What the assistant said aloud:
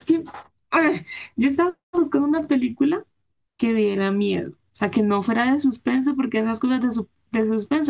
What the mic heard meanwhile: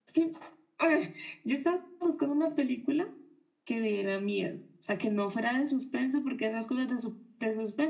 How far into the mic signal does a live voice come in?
none

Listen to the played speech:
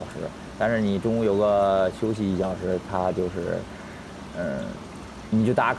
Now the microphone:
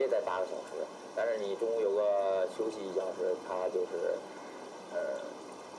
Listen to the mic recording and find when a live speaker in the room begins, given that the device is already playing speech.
none

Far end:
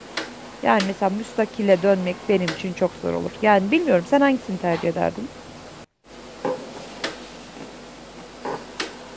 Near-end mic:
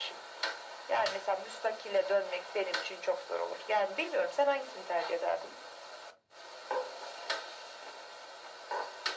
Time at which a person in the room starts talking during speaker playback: none

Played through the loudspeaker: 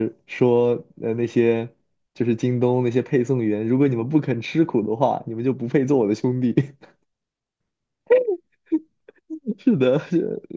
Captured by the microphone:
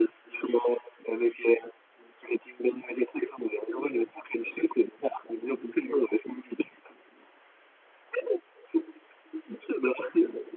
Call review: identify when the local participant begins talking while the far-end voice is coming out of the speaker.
none

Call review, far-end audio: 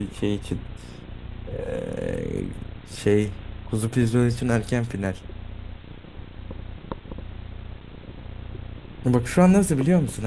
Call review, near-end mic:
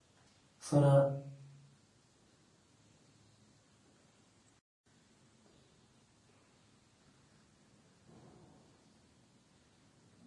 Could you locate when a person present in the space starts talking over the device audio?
0.6 s

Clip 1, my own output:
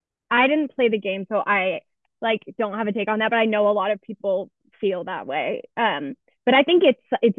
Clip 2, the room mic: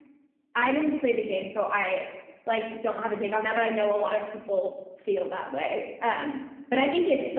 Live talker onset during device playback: none

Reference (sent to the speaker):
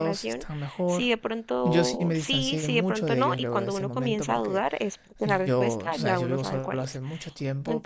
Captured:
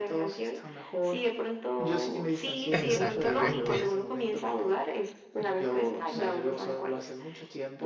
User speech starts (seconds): 2.7 s

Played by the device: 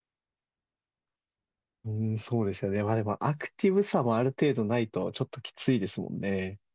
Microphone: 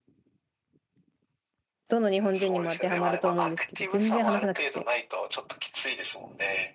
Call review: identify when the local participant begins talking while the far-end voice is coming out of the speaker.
1.9 s

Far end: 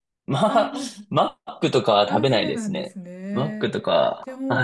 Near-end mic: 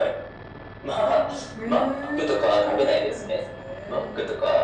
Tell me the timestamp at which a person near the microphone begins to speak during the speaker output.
1.5 s

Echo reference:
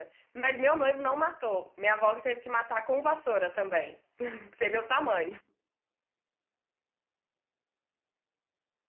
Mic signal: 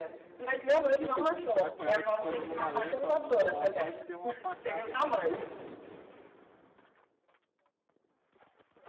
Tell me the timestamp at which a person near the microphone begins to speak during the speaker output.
0.7 s

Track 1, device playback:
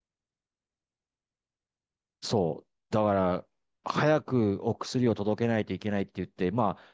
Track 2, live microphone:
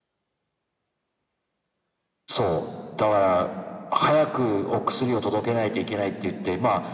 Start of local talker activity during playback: none

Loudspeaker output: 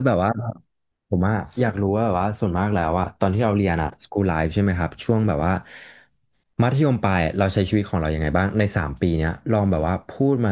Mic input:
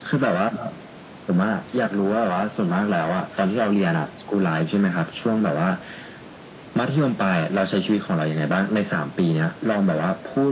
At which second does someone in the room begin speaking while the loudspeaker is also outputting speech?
none

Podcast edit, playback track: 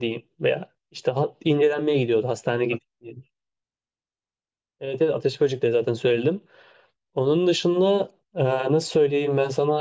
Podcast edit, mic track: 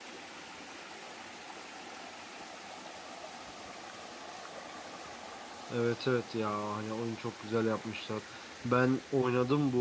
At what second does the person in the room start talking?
5.7 s

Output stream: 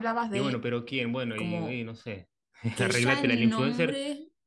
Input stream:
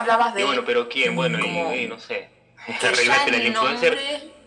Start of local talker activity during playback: 1.0 s

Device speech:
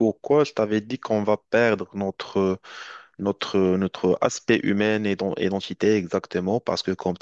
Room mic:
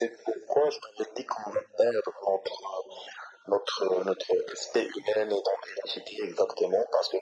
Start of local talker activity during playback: none

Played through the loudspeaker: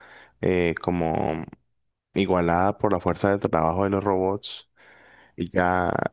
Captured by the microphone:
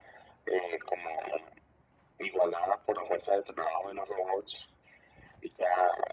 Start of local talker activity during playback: none

